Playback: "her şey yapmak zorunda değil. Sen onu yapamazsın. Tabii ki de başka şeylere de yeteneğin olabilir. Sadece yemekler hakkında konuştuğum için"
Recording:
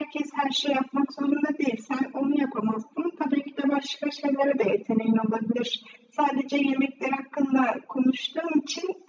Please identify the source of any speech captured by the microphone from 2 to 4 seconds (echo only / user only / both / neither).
echo only